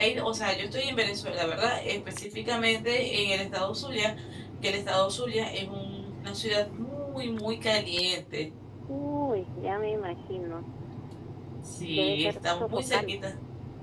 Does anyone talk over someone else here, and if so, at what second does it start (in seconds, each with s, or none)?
11.9 s